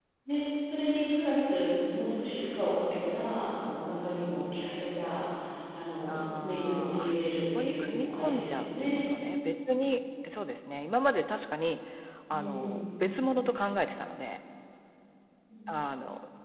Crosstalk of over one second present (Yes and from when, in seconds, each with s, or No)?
Yes, from 6.1 s